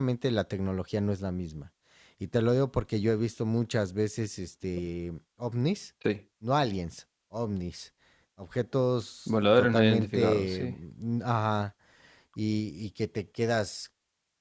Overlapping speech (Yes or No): Yes